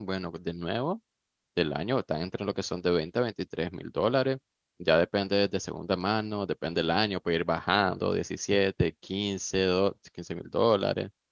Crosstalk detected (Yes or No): No